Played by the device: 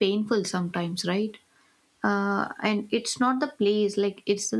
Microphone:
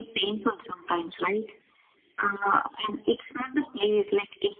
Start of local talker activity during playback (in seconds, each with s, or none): none